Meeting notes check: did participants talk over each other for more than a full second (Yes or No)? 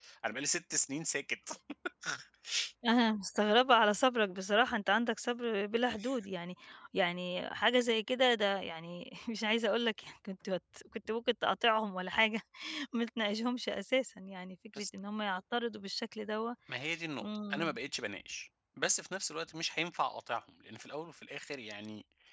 No